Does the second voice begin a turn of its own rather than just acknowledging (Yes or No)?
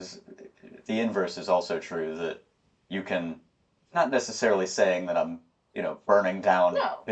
No